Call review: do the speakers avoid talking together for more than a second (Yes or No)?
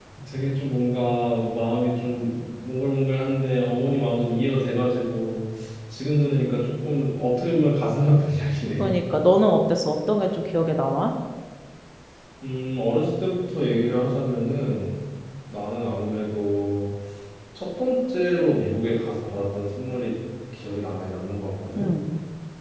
Yes